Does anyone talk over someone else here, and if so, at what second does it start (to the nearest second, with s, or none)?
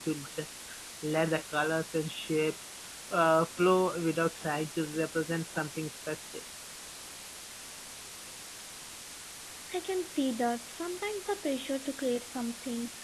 none